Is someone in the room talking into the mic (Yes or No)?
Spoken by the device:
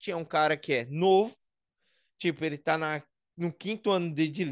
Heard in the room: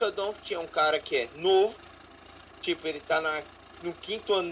No